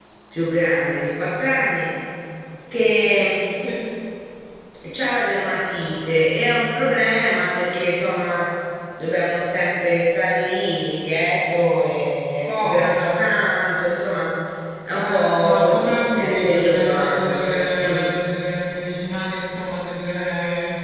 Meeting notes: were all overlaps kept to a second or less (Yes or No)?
No